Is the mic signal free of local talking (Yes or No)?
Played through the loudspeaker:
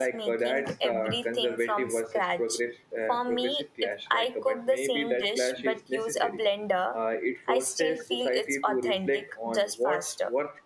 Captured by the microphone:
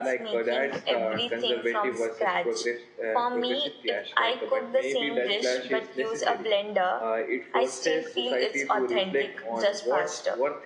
Yes